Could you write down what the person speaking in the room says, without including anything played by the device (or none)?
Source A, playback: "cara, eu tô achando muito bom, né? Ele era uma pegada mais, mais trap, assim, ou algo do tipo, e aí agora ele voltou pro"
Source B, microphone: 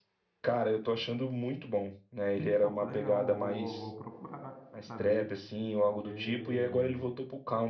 pô, que legal, vou, vou procurar saber, porque